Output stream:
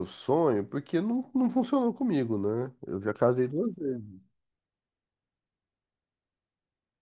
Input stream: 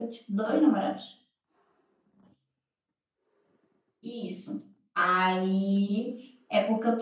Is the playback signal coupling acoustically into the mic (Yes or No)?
No